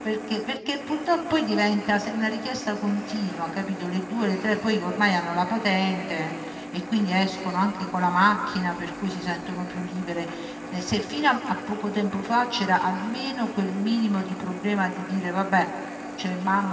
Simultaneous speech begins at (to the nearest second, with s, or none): none